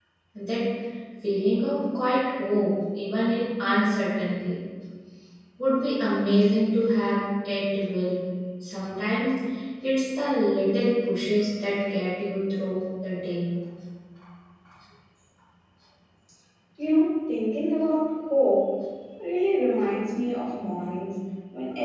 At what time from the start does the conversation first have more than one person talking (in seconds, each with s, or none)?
none